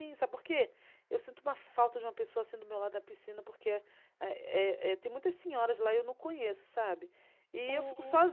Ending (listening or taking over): listening